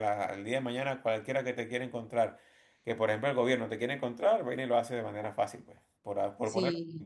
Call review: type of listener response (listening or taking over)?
taking over